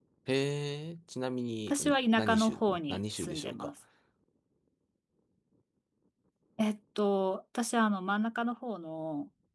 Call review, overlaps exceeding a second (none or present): present